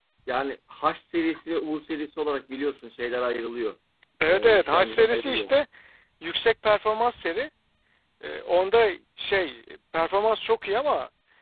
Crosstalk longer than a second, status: present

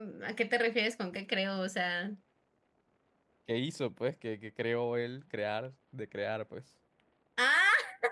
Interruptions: none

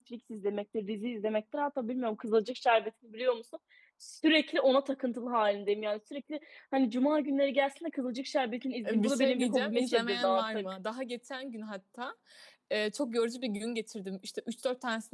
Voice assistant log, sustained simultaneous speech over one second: present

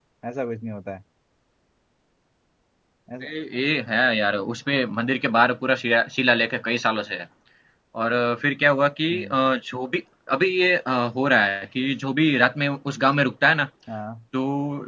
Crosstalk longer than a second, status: none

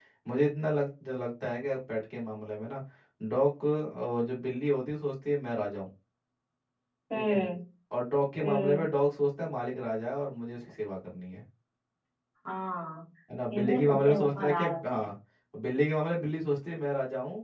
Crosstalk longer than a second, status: present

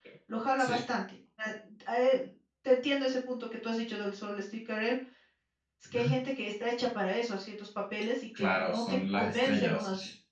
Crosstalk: present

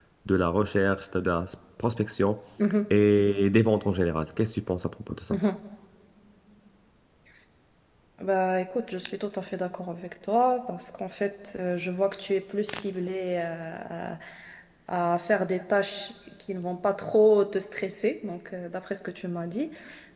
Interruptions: none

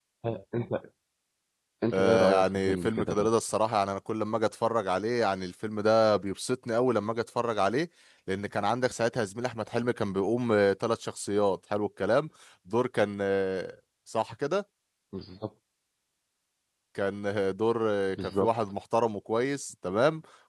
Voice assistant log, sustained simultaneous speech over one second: present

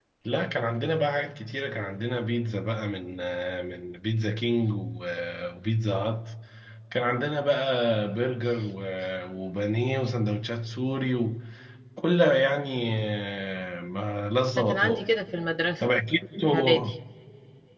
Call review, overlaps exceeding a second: none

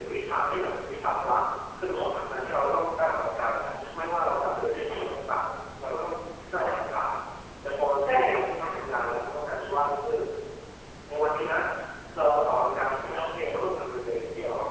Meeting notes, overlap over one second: none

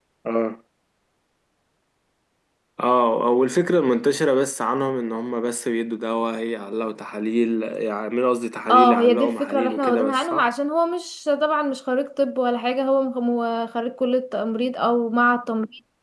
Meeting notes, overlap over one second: present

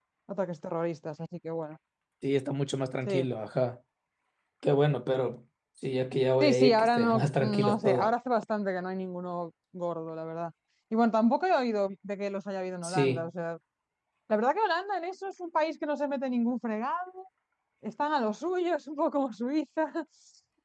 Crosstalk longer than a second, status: present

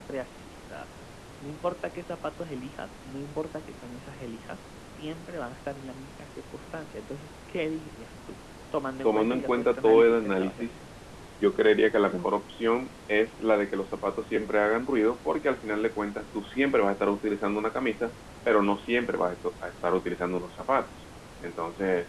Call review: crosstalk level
present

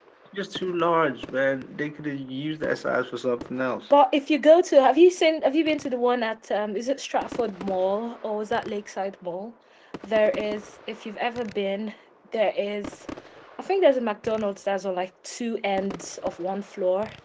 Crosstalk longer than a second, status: none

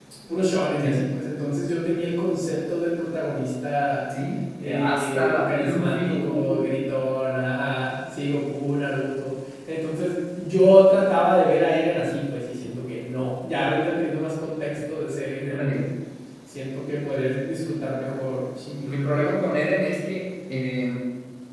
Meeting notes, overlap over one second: present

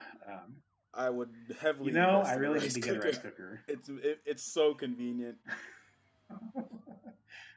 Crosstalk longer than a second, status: present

